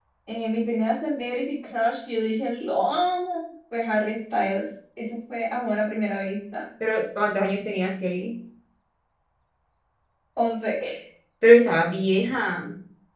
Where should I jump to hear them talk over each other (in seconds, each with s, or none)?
none